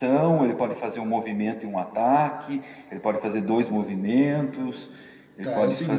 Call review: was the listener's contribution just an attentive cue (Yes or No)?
No